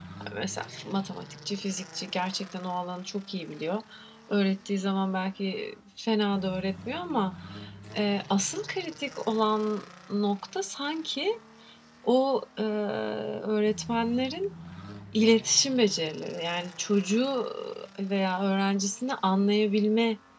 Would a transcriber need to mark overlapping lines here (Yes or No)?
No